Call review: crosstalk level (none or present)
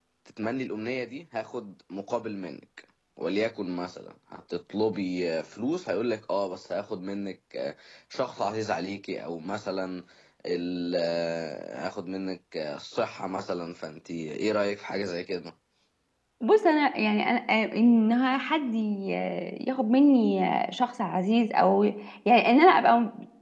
none